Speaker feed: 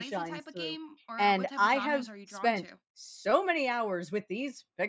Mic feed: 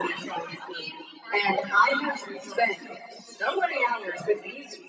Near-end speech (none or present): none